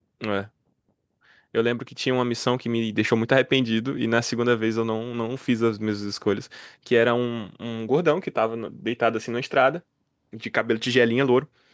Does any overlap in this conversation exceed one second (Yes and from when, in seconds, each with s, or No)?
No